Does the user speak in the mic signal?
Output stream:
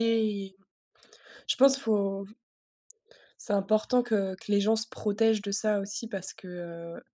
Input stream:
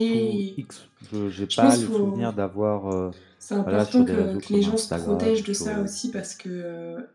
Yes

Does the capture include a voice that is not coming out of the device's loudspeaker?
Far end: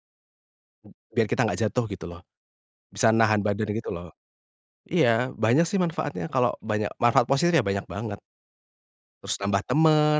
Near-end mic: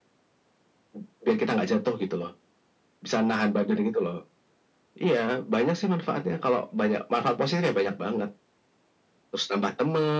No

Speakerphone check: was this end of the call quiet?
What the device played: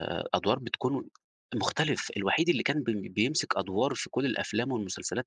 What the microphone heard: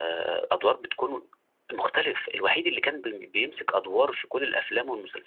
Yes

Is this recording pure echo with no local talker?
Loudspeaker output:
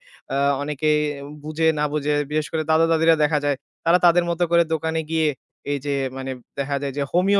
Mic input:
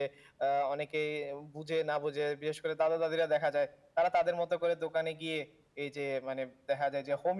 Yes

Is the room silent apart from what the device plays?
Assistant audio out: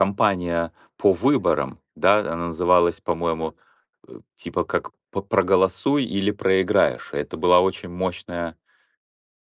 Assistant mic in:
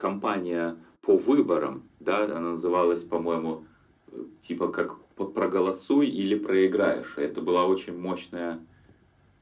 Yes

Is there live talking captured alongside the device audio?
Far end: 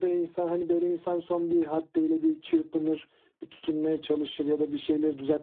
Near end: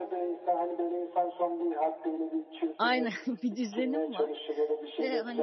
Yes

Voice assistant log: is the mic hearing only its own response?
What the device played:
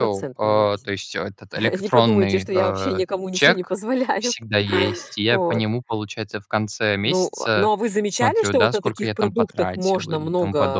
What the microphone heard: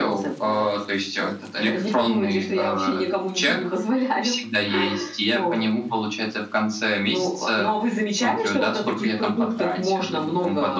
Yes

